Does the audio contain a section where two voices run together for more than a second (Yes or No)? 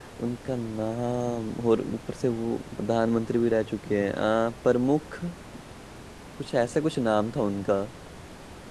No